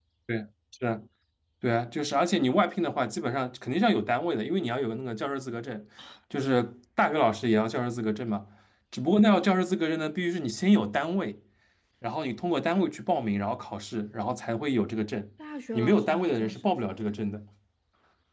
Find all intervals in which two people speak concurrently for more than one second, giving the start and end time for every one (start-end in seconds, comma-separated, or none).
15.7-17.2